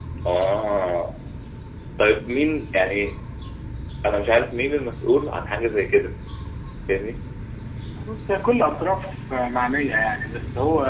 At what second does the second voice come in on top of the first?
none

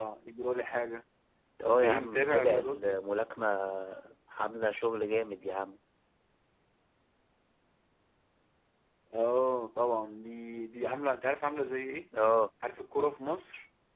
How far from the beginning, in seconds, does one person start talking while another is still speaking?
1.6 s

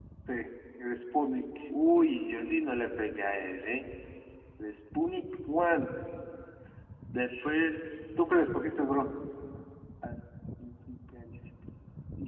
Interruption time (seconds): none

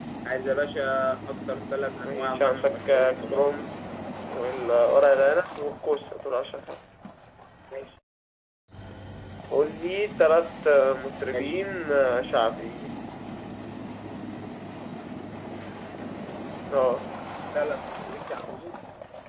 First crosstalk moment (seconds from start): 2.0 s

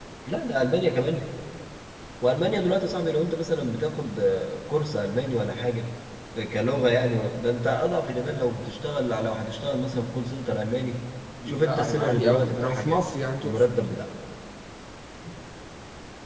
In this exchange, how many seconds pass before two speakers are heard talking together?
11.5 s

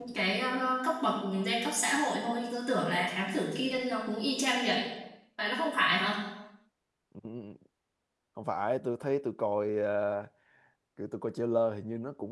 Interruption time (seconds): none

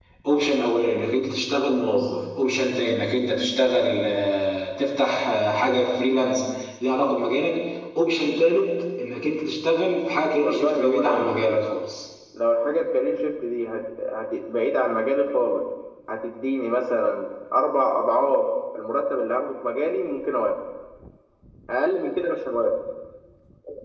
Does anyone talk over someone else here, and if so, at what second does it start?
10.4 s

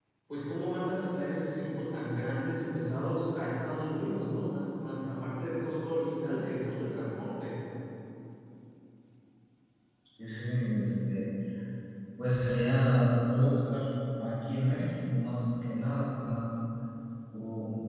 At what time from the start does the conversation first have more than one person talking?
none

